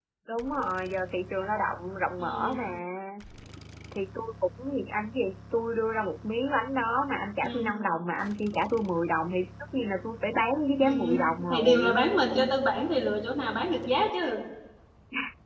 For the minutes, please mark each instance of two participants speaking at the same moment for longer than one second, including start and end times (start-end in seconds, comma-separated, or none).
10.8-12.0